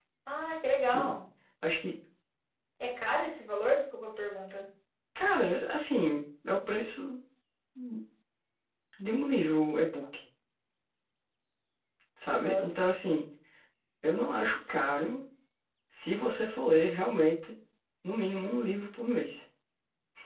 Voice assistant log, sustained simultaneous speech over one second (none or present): none